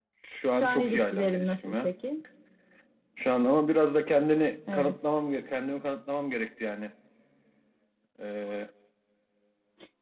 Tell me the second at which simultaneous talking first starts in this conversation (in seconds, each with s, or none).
0.5 s